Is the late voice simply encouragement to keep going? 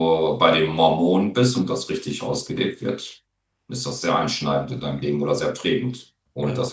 Yes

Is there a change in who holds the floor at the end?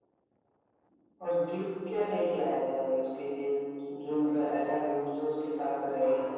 Yes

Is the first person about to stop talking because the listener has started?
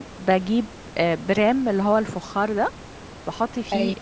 No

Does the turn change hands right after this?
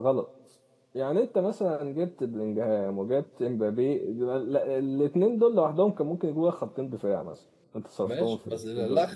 Yes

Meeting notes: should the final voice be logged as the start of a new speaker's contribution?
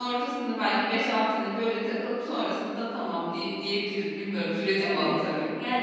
Yes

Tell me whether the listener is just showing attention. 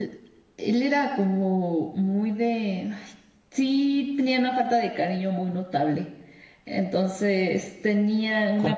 Yes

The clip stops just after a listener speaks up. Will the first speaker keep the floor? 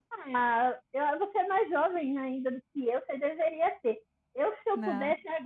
Yes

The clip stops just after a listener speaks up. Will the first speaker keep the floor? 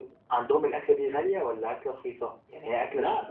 No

